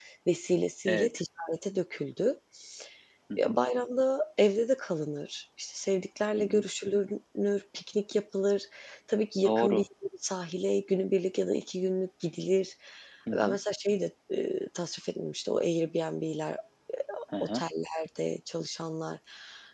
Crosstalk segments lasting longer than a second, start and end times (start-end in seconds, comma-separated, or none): none